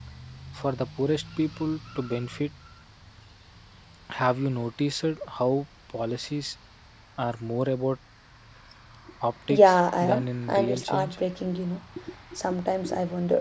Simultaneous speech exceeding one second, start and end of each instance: 9.5-11.2

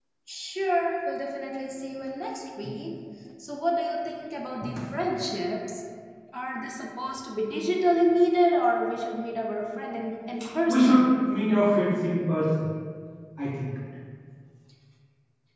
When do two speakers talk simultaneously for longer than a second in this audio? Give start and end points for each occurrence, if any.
none

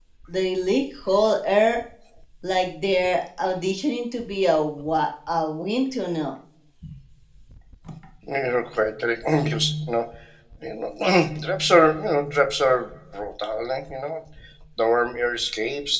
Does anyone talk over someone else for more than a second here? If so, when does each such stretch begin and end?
none

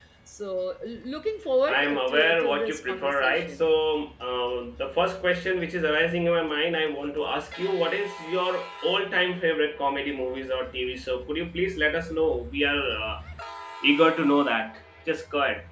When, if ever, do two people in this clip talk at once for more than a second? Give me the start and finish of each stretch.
1.7-3.6

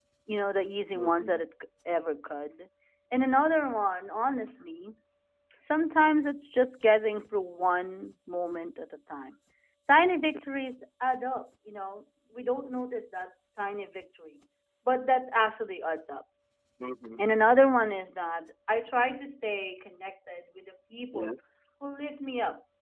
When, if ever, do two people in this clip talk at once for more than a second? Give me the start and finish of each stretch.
none

